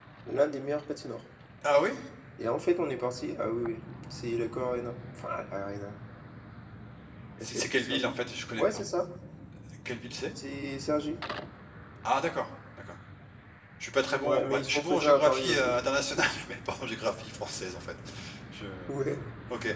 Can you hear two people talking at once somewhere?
Yes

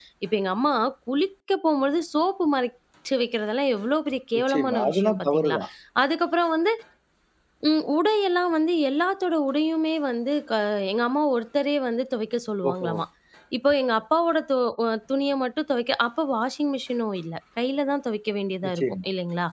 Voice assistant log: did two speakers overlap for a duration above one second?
Yes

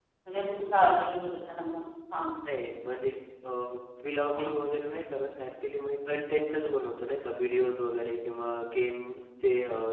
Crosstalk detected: No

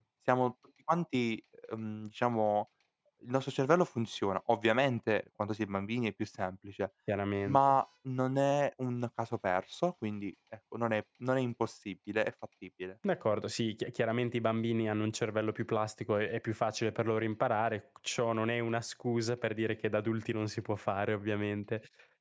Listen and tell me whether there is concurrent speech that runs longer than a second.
No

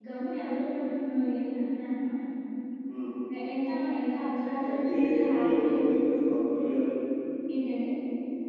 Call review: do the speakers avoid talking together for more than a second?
No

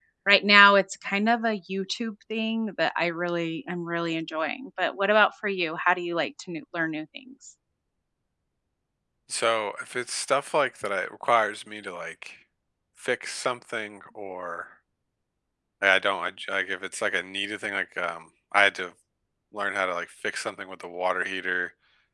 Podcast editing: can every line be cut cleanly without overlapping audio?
Yes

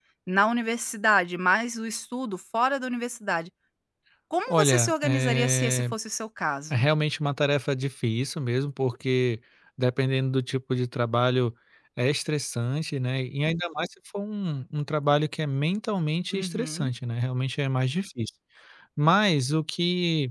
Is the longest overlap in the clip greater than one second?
Yes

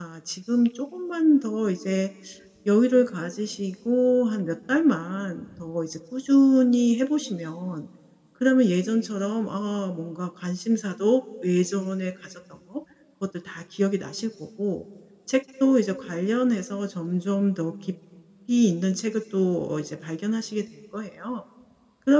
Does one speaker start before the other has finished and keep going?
No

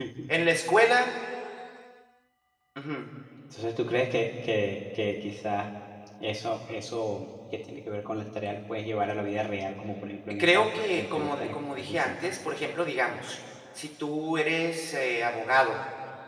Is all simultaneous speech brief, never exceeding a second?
No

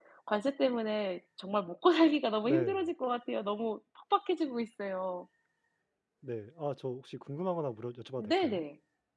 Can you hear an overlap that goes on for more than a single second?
No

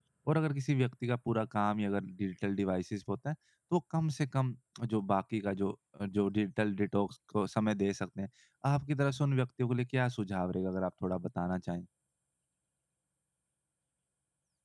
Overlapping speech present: No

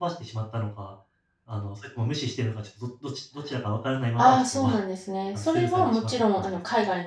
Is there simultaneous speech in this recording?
Yes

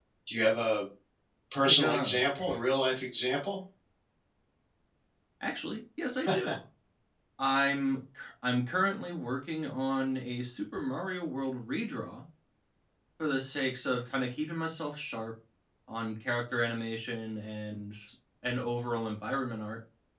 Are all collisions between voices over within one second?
Yes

